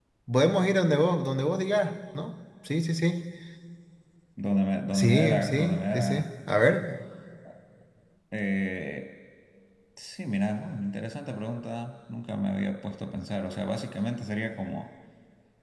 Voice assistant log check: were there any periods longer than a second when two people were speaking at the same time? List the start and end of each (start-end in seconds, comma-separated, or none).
4.9-6.2